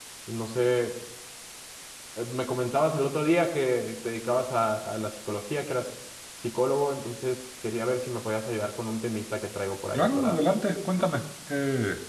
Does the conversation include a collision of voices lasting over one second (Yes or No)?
No